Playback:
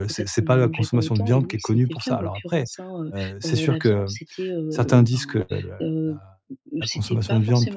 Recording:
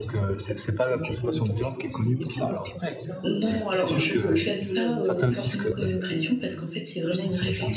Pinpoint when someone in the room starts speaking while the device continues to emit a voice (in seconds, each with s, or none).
3.2 s